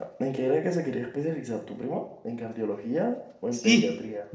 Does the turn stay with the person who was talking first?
No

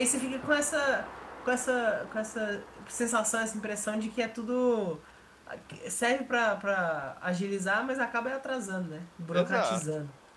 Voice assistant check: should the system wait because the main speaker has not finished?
No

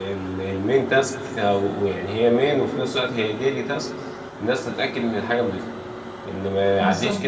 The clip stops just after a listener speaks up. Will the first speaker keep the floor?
Yes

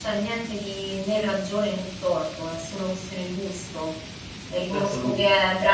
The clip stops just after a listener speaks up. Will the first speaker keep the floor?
Yes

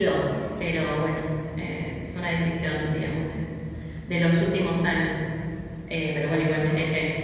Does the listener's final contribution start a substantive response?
No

